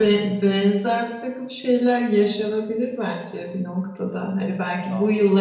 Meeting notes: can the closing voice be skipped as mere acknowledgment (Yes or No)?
Yes